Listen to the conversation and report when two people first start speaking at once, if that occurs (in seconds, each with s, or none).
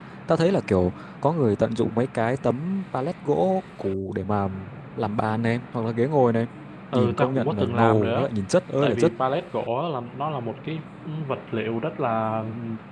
6.9 s